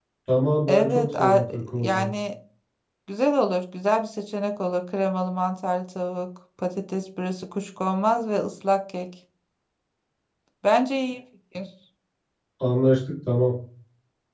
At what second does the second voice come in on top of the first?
0.7 s

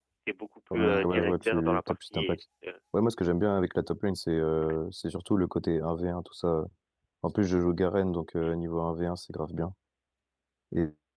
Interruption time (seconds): 0.7 s

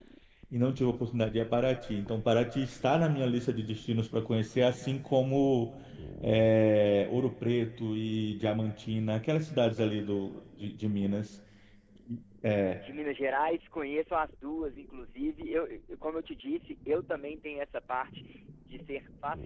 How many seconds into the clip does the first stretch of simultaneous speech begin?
none

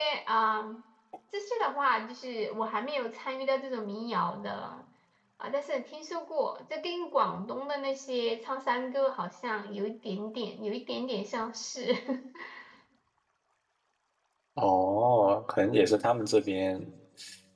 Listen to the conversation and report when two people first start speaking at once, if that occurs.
none

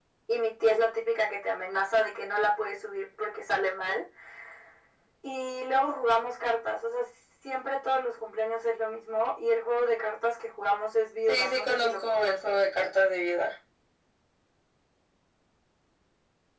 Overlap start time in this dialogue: 11.3 s

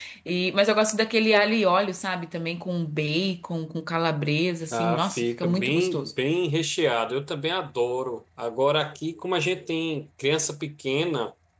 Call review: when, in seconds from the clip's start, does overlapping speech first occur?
4.7 s

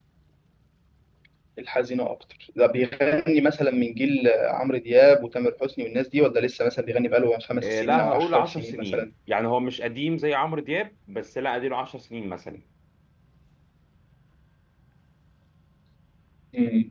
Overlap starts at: 7.6 s

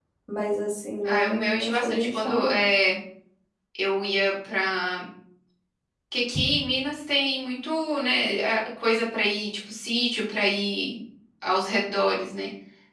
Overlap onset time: 1.1 s

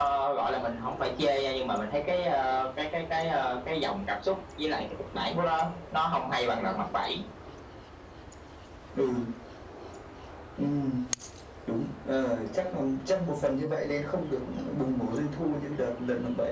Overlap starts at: none

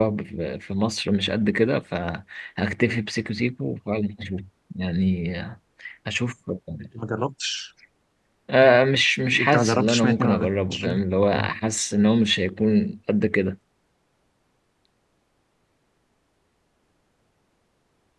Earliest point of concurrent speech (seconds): 9.4 s

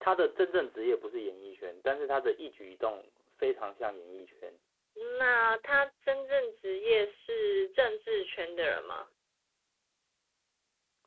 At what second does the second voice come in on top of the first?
none

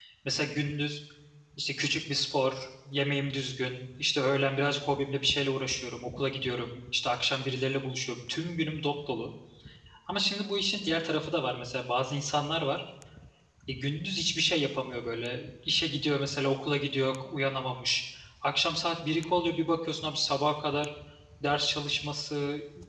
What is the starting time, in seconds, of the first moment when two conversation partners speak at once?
none

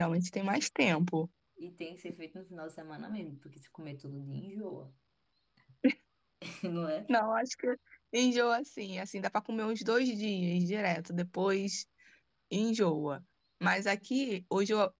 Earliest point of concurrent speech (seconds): none

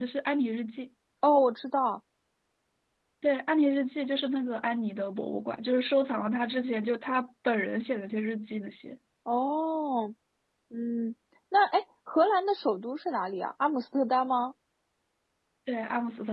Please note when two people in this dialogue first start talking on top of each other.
none

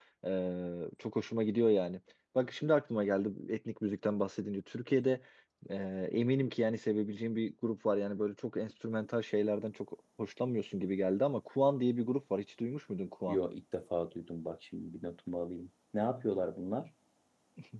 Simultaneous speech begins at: none

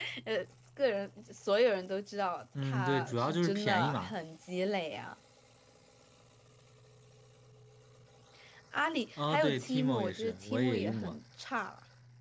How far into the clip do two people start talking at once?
2.6 s

